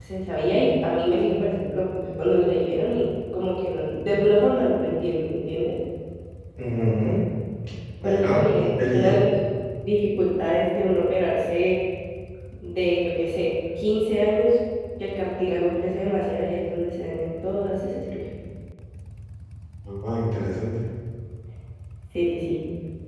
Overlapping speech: Yes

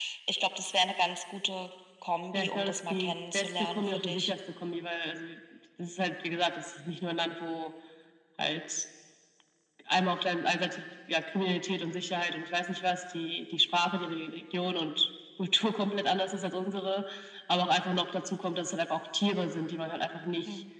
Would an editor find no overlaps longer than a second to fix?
No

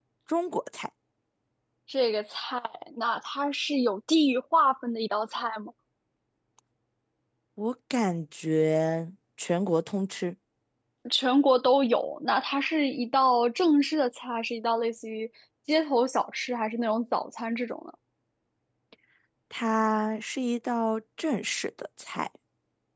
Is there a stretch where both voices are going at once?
No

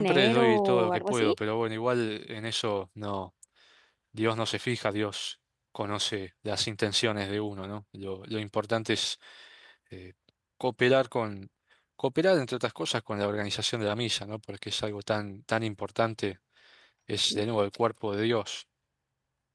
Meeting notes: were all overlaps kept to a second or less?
No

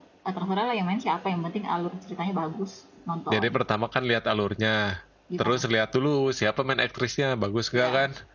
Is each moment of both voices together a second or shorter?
Yes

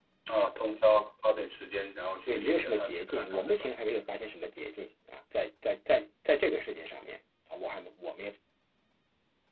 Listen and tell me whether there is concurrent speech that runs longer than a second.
Yes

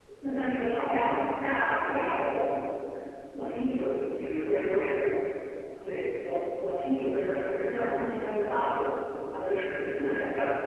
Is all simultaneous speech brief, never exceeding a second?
No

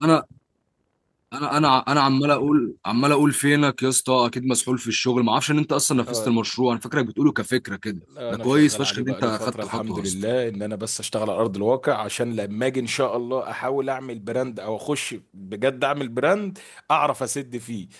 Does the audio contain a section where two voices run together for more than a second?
Yes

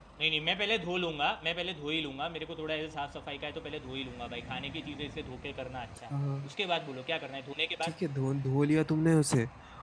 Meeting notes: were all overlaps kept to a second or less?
Yes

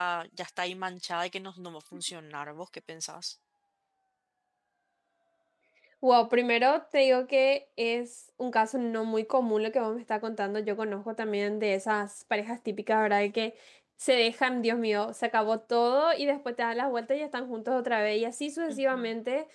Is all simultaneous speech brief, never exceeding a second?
Yes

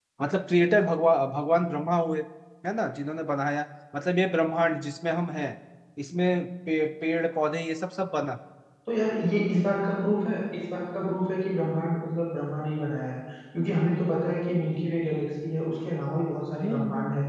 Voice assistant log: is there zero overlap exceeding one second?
Yes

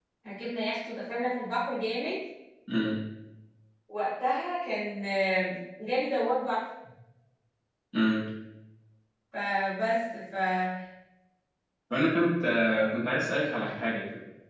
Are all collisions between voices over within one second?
Yes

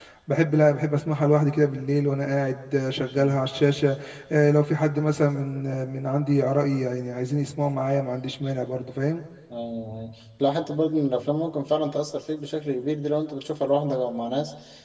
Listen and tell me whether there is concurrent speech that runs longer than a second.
No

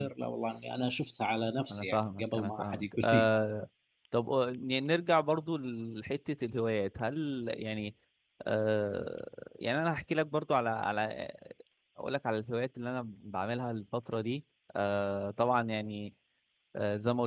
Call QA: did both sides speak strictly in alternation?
No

